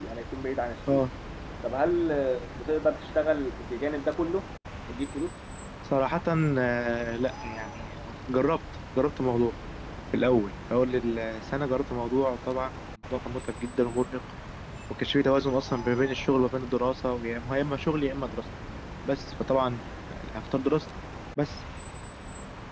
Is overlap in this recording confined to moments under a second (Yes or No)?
Yes